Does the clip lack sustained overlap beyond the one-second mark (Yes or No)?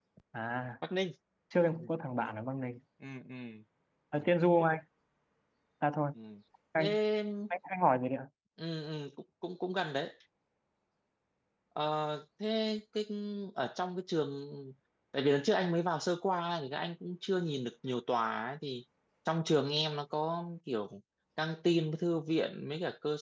Yes